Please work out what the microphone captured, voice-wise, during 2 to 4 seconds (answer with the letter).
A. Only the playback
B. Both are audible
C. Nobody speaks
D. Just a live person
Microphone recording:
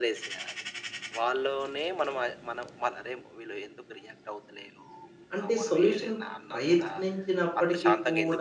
A